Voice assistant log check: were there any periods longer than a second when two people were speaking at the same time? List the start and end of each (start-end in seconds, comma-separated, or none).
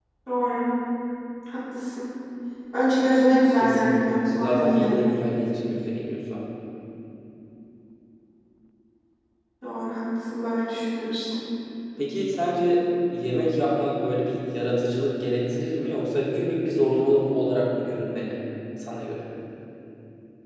3.6-5.0